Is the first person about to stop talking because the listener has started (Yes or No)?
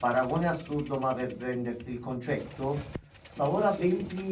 No